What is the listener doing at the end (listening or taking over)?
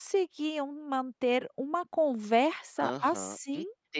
taking over